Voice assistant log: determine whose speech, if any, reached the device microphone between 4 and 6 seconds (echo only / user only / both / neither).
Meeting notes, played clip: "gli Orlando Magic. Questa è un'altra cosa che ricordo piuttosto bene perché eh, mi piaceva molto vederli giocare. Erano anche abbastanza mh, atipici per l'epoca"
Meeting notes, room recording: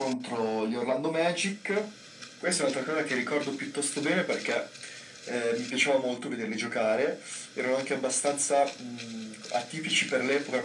echo only